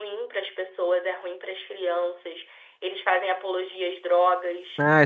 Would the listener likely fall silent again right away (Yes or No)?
No